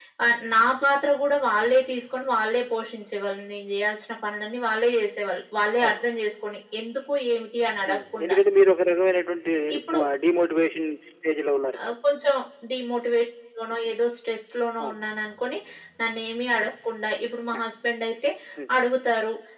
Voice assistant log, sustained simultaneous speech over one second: none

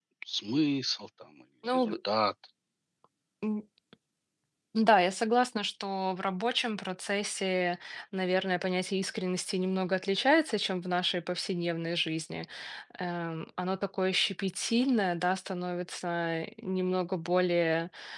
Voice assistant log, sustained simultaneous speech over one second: none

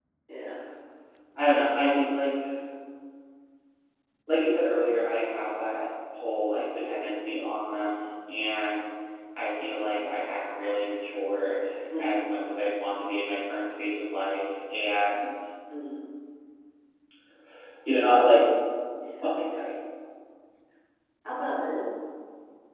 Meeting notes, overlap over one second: none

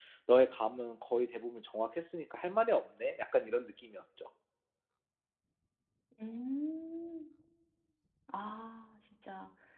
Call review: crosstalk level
none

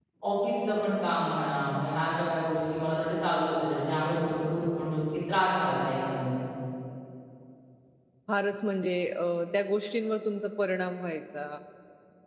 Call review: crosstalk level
none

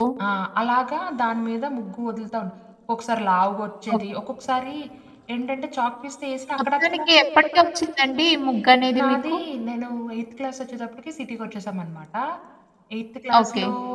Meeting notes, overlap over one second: none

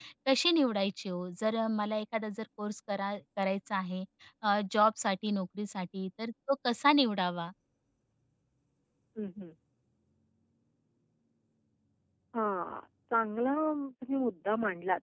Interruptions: none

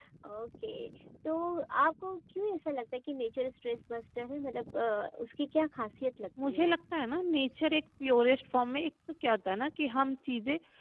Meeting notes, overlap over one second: none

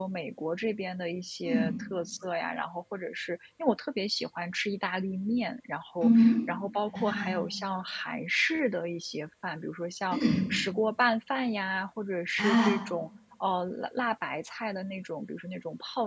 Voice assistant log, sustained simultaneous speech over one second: none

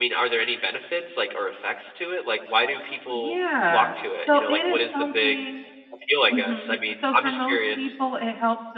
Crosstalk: present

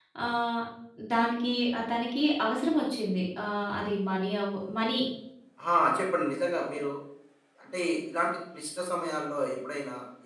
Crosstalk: none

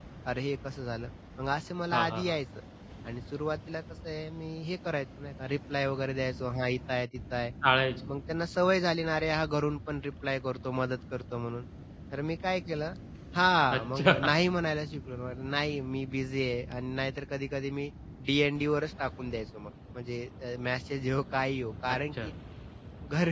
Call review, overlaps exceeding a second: none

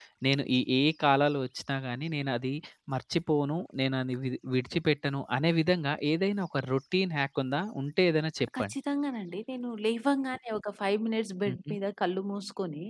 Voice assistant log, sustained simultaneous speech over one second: none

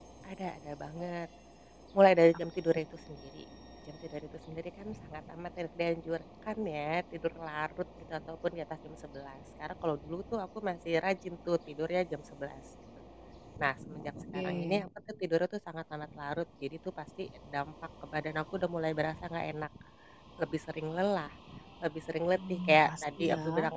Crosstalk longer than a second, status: present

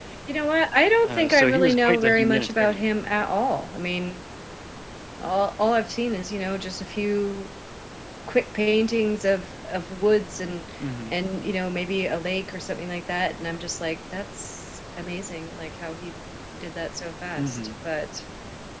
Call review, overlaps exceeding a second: present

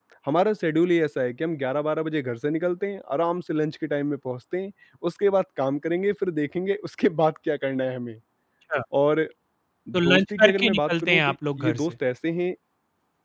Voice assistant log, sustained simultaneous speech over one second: present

